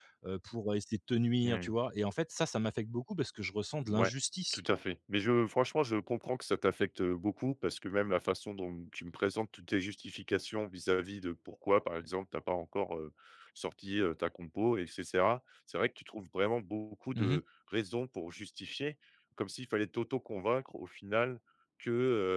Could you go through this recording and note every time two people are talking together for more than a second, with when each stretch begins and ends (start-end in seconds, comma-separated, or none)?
none